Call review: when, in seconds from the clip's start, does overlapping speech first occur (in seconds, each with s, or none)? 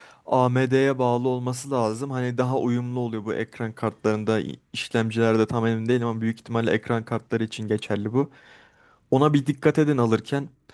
none